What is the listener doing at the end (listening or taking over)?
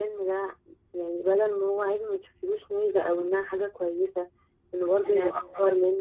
listening